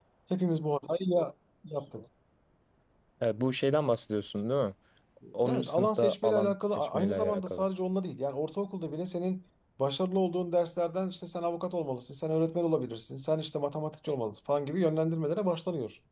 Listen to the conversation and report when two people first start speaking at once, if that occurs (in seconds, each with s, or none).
5.4 s